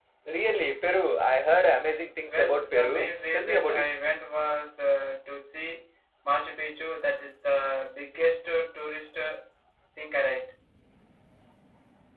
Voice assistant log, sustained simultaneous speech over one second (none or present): present